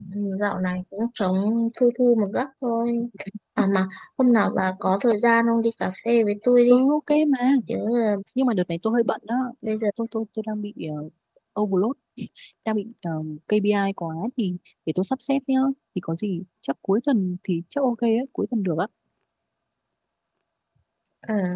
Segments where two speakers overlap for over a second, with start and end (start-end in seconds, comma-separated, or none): none